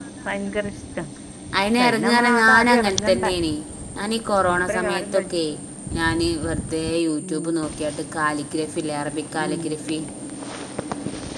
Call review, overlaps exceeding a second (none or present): present